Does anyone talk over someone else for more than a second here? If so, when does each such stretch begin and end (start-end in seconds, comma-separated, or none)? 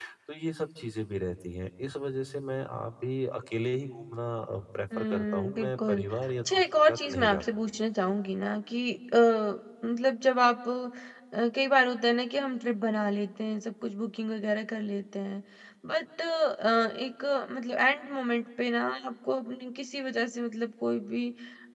5.0-7.4